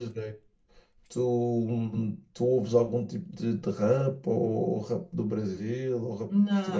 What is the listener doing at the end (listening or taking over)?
taking over